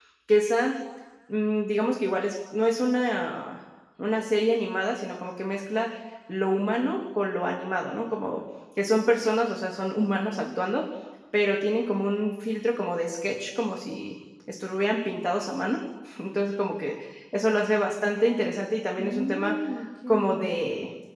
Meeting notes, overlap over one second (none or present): none